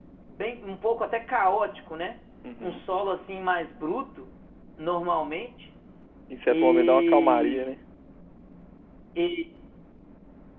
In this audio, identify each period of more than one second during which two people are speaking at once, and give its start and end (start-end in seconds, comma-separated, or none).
6.5-7.7